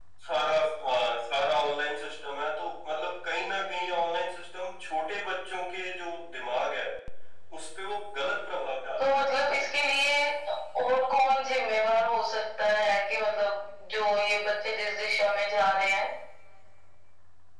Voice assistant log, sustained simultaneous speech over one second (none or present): none